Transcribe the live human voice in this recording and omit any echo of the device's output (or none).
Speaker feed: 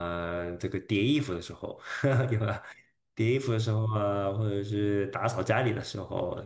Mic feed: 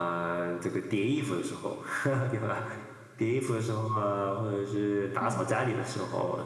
嗯，